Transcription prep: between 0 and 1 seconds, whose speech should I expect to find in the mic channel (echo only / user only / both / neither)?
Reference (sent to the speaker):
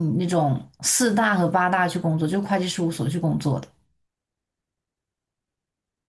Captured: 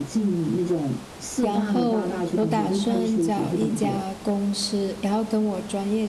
echo only